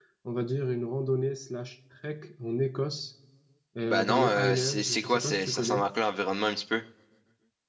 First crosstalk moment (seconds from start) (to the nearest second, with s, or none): 4 s